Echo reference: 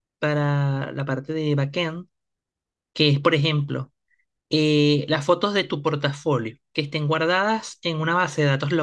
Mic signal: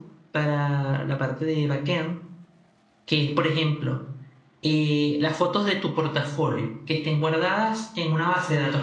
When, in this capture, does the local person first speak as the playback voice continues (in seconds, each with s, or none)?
none